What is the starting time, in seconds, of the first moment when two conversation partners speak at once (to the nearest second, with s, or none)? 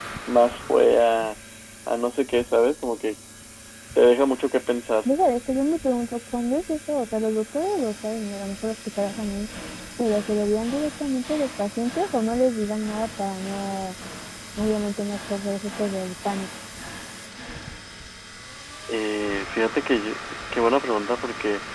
none